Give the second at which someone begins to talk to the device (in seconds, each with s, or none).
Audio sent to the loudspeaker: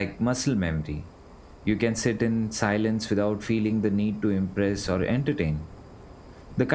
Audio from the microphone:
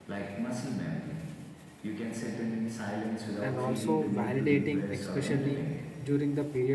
3.4 s